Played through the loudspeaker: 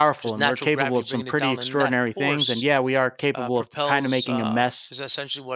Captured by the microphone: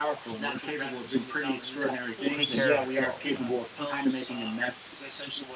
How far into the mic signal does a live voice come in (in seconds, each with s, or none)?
2.3 s